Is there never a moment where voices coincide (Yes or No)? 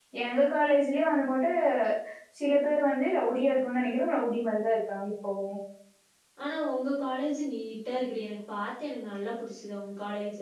Yes